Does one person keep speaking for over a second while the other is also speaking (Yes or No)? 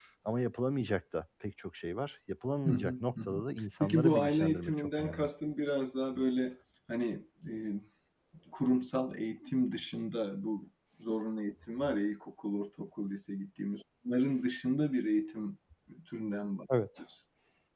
Yes